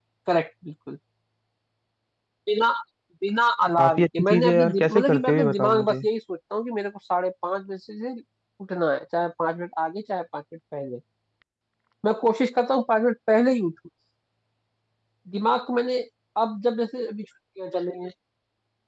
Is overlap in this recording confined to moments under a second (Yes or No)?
No